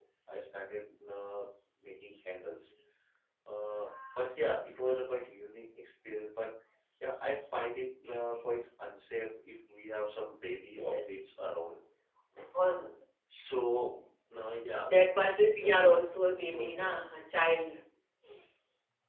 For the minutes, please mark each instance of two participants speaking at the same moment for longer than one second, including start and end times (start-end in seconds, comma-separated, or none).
15.6-16.9